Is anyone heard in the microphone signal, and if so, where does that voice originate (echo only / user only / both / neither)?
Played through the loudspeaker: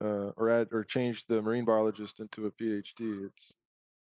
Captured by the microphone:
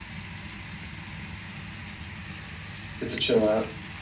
user only